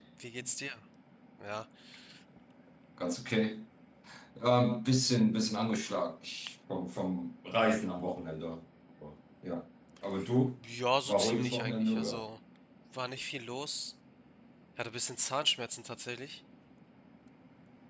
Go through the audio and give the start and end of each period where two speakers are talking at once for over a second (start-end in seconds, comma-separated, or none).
11.1-12.2